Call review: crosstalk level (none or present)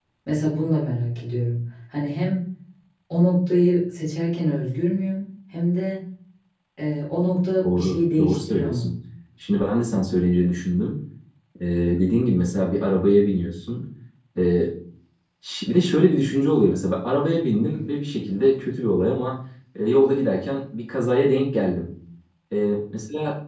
present